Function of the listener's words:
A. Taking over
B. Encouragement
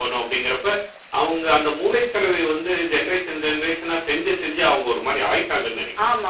A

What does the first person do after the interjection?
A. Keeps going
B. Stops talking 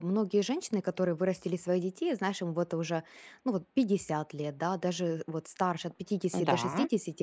A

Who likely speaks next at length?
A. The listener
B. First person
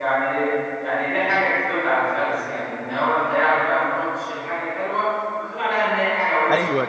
A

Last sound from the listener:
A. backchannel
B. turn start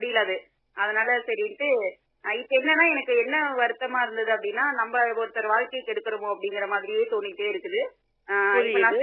B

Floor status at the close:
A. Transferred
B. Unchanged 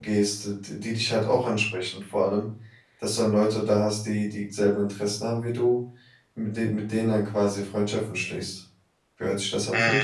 A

